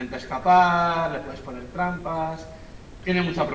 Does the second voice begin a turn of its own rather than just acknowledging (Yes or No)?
No